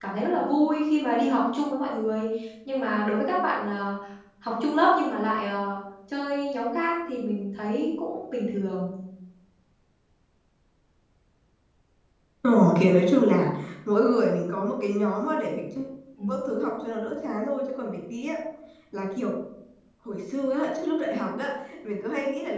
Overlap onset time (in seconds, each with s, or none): none